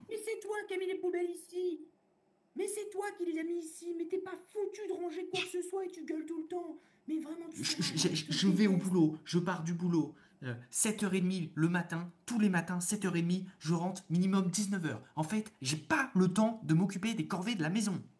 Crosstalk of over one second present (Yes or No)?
Yes